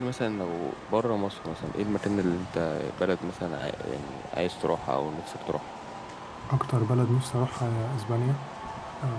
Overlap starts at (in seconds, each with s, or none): none